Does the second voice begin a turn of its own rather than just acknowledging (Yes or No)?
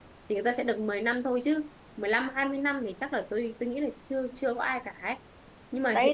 Yes